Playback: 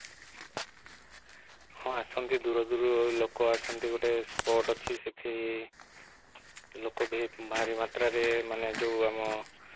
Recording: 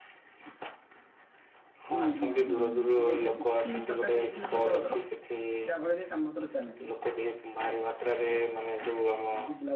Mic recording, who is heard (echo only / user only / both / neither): both